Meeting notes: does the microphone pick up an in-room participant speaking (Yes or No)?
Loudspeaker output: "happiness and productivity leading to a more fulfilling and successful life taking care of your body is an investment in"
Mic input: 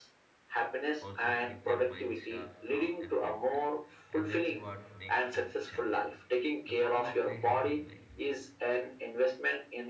Yes